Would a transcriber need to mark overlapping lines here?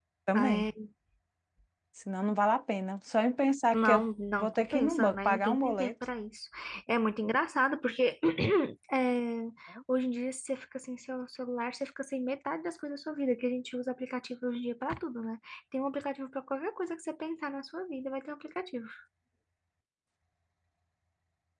Yes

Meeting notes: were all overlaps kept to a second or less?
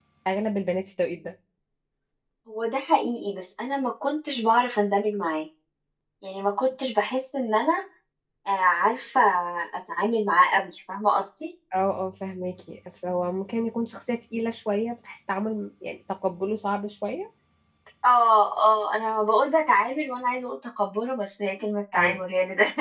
Yes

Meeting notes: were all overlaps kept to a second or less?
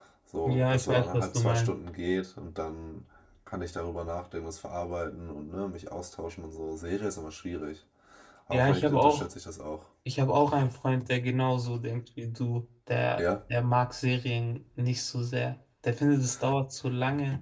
No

